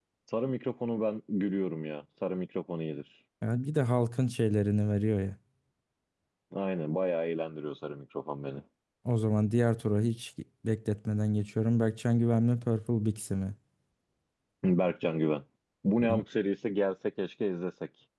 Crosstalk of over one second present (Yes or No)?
No